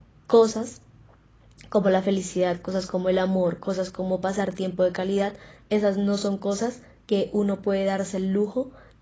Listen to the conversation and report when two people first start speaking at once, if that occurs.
none

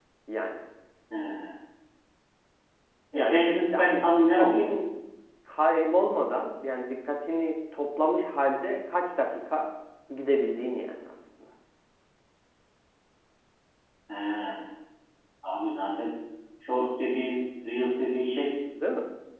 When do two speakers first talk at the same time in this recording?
3.1 s

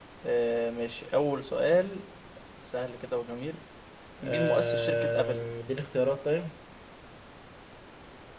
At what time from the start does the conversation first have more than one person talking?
4.2 s

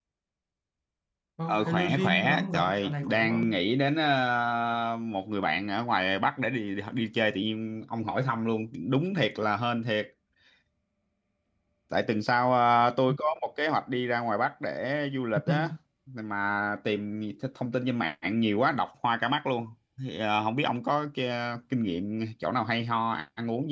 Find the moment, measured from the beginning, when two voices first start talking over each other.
1.5 s

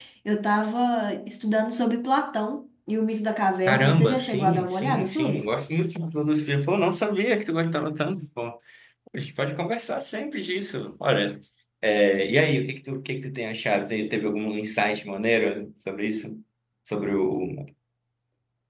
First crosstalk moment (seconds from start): 3.7 s

